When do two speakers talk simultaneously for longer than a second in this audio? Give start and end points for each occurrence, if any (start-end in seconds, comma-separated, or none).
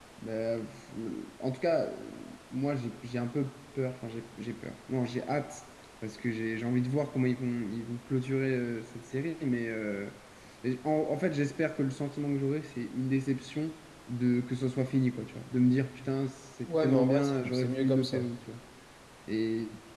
16.7-18.3